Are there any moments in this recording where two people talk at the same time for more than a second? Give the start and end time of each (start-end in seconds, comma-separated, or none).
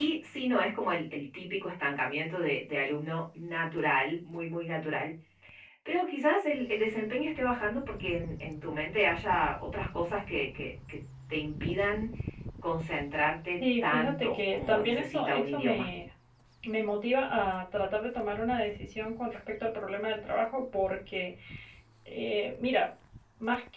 13.8-15.9